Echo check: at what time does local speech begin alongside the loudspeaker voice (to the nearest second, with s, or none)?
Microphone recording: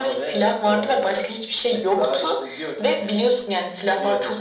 none